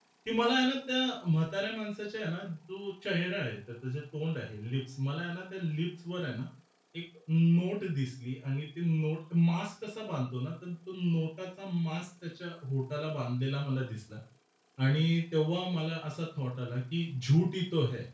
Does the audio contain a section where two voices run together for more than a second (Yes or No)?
No